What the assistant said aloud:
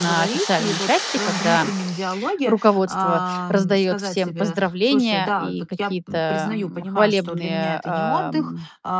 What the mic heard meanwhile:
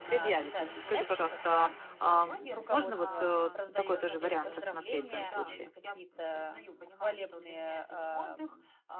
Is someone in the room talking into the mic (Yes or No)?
Yes